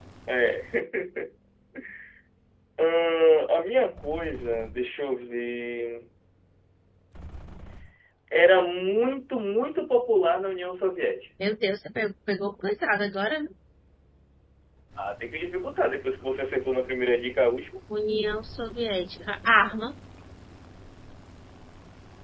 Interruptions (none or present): none